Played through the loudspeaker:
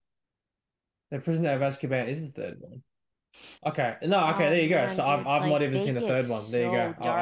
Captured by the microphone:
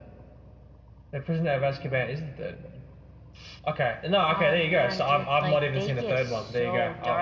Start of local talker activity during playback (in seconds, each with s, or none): none